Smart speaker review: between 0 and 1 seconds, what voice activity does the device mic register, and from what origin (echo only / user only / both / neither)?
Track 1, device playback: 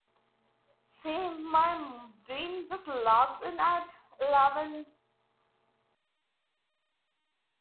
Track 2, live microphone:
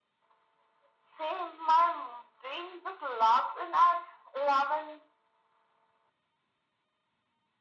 neither